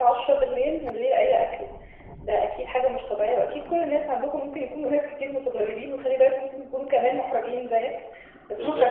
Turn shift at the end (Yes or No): No